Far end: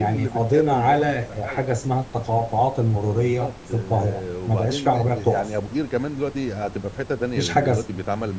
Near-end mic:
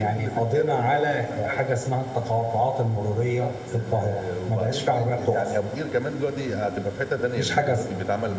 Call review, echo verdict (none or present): present